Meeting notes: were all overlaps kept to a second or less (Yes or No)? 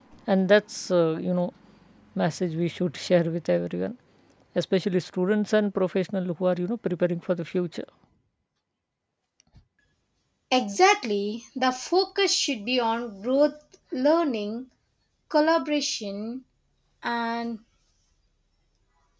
Yes